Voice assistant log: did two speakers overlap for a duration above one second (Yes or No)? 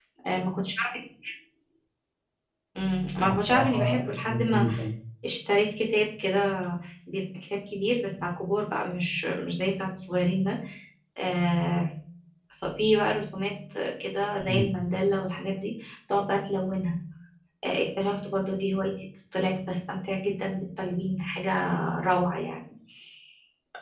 Yes